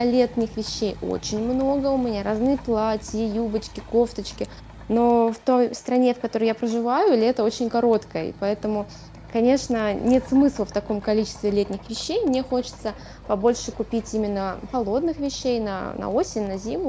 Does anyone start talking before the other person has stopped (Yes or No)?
No